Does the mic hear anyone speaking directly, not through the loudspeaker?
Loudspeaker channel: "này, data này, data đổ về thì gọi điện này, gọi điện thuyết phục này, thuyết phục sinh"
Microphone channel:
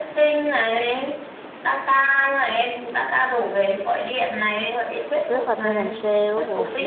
Yes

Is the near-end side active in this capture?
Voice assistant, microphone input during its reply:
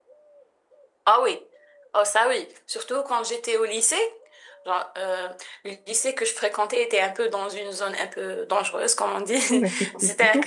Yes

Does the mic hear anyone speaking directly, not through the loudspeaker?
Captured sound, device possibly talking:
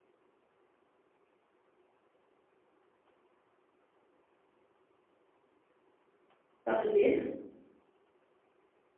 Yes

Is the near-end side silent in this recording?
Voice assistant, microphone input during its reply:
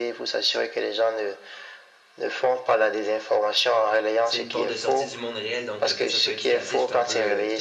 No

